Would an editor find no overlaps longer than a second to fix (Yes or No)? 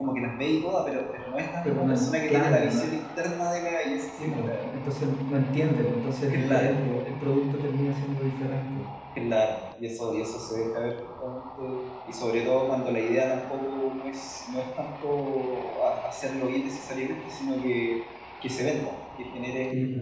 No